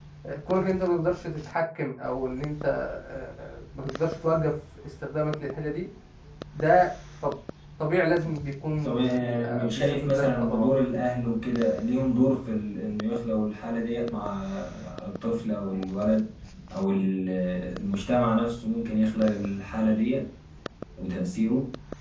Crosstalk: present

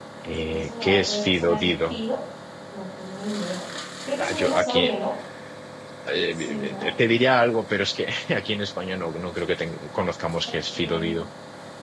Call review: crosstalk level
present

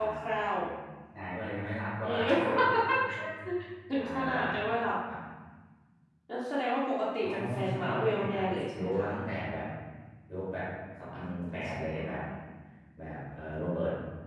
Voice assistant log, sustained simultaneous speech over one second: present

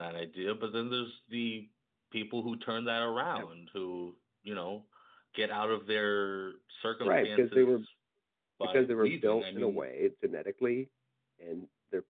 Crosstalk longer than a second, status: present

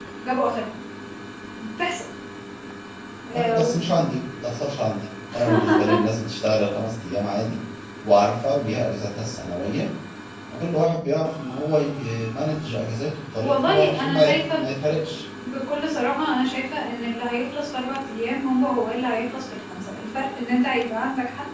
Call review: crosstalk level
present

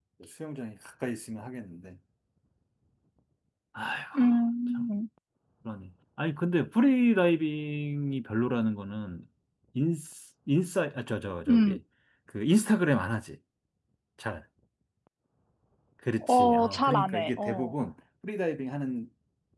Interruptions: present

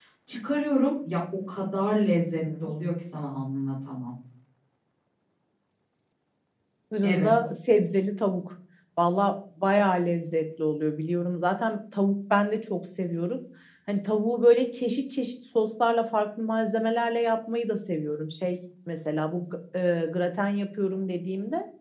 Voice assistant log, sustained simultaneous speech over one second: none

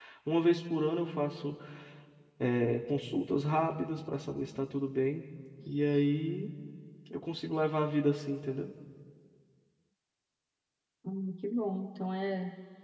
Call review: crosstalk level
none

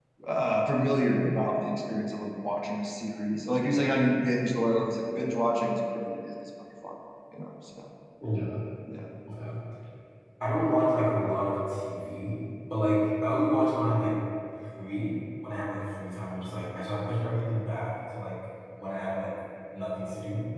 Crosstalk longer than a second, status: none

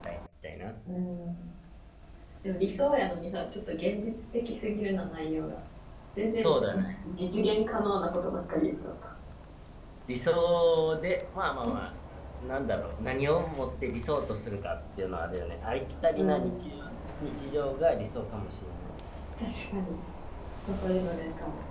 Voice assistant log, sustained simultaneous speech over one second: none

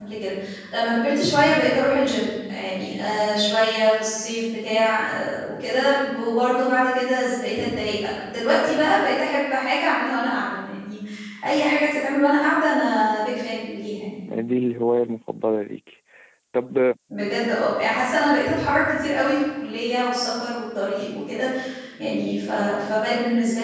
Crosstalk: none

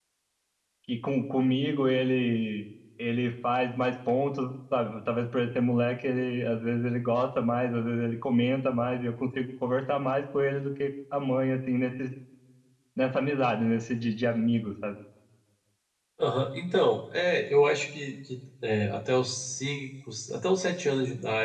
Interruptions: none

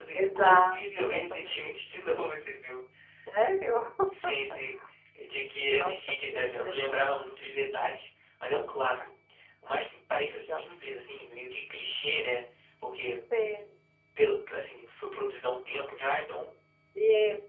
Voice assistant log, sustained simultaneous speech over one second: present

